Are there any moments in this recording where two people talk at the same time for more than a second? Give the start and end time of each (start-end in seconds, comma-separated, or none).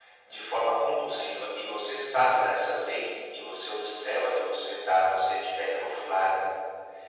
none